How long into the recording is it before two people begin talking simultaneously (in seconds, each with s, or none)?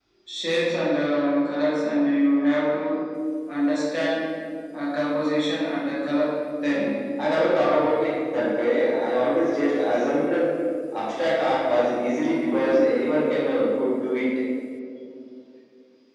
none